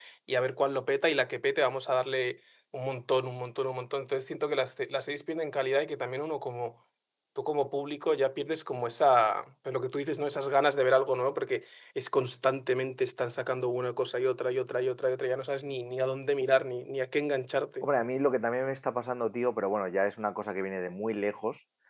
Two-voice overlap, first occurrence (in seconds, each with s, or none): none